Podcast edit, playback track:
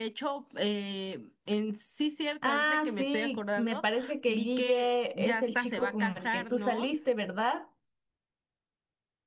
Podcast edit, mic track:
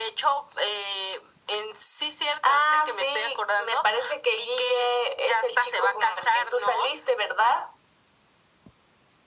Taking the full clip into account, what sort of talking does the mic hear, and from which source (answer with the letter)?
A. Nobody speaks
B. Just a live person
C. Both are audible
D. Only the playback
D